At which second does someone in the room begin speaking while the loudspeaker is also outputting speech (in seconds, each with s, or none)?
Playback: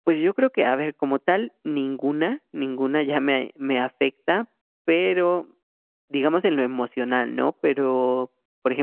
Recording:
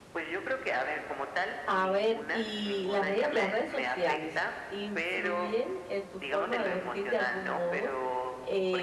1.6 s